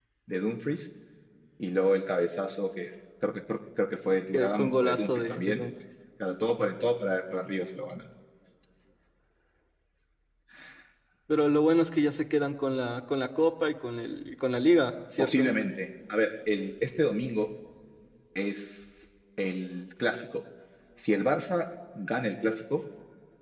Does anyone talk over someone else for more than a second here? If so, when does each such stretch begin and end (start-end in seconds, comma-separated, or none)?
4.3-5.6